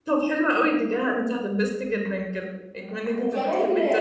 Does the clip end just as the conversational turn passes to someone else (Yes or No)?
Yes